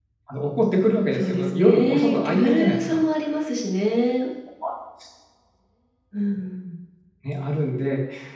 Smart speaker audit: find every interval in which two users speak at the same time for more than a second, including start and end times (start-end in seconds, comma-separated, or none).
1.1-3.0